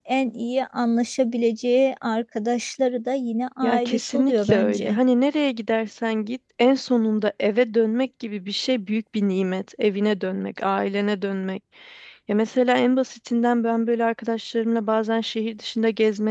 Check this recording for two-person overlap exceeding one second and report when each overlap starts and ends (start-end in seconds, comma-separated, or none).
3.6-5.0